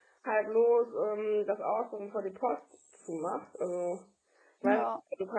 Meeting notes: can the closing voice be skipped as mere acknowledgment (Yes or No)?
Yes